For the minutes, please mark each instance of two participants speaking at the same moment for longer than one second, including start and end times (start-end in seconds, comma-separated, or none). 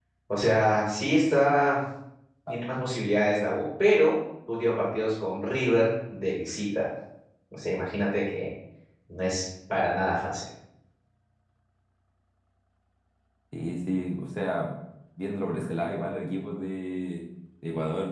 none